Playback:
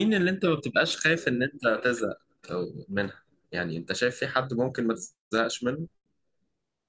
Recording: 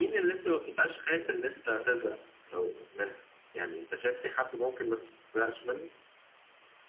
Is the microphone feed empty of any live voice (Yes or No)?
Yes